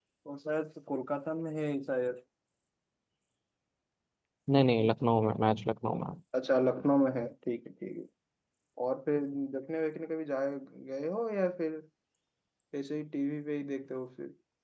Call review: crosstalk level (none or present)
none